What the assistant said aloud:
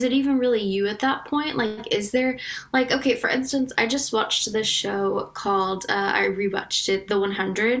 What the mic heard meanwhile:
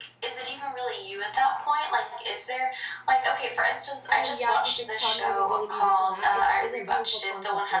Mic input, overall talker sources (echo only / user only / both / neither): both